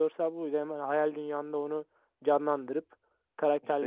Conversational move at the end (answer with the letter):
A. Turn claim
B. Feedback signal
A